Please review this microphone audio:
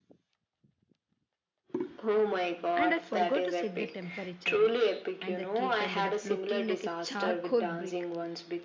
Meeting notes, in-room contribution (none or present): present